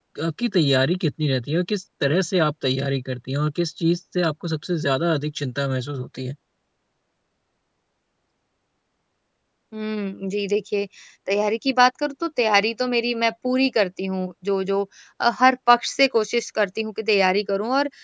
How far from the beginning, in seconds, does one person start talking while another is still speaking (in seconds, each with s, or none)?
none